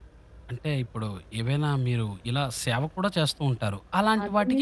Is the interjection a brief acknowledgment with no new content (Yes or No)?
No